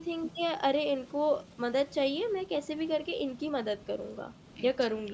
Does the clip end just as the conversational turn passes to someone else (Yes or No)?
Yes